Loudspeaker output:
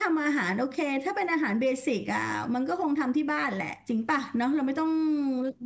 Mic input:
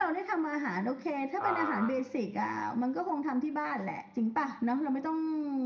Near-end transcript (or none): เอ่อ